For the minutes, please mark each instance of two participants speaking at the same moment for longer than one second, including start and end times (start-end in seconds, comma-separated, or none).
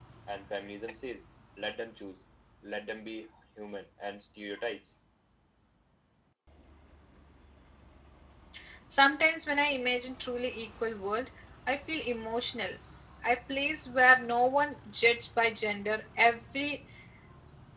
none